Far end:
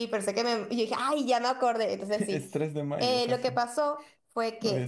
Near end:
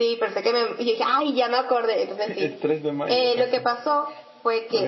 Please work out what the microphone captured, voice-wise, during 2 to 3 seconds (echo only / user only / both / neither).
echo only